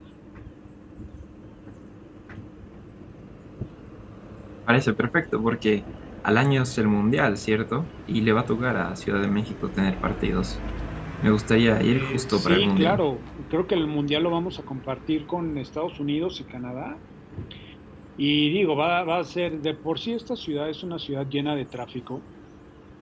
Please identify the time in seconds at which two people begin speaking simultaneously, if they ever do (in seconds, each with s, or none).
11.9 s